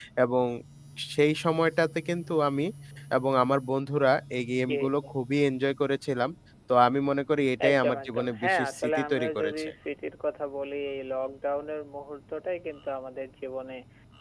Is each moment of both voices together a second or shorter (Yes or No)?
No